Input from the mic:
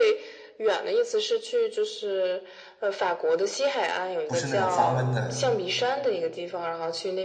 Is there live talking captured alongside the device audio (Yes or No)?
Yes